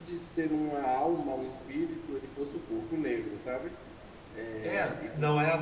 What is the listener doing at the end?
taking over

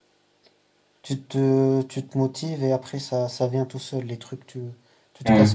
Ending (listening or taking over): listening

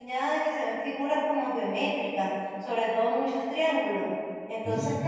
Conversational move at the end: listening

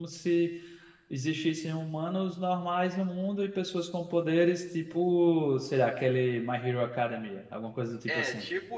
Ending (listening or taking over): taking over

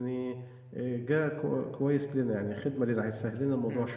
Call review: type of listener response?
taking over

